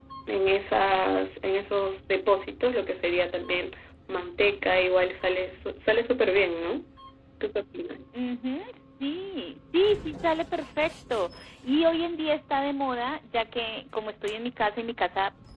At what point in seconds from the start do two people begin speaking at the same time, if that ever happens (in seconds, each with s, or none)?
none